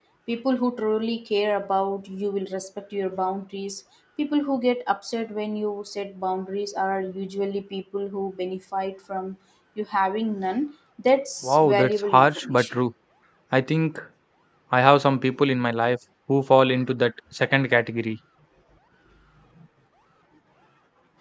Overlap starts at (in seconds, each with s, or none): 11.4 s